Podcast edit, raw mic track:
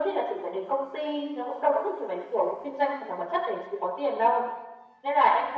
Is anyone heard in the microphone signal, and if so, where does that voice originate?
echo only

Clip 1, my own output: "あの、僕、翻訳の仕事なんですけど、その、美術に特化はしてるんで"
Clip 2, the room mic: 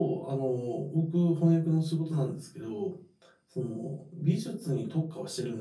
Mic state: echo only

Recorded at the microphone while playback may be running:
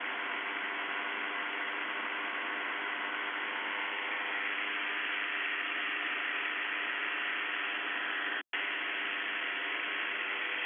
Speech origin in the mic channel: neither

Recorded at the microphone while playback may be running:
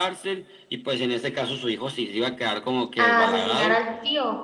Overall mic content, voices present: both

